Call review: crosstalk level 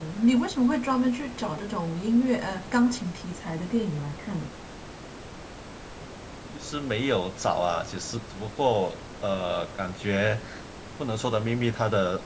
none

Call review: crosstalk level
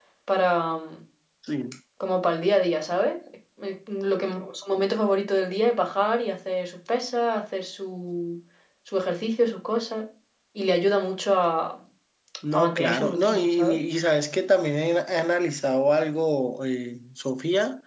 present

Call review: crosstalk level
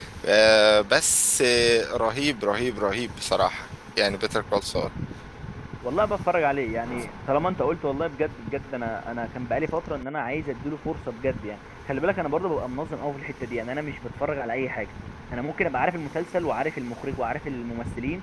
none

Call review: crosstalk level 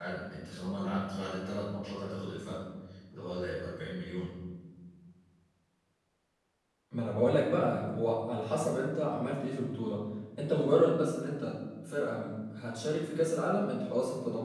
none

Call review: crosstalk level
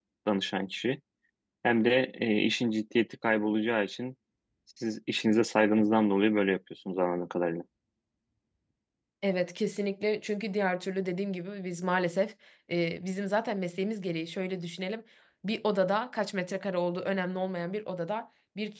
none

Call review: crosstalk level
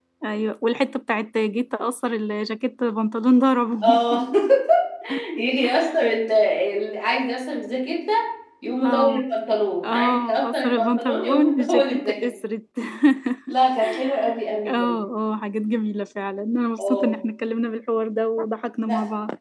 present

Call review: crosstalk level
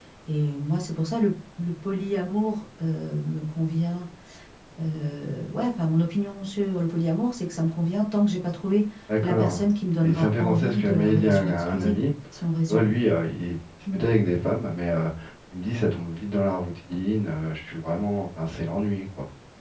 present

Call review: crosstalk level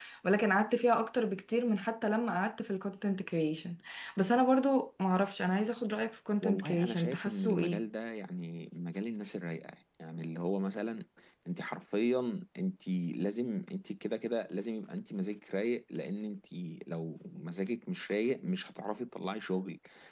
present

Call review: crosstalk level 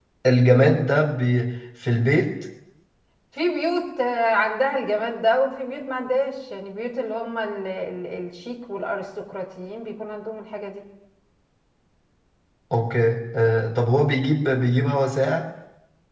none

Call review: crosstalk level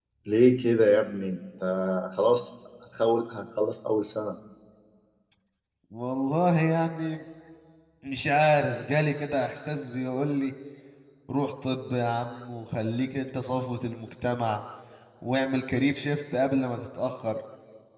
none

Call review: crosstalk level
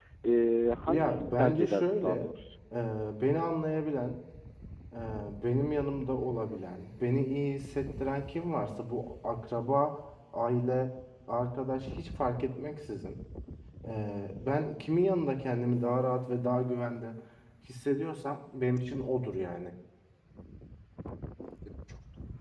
present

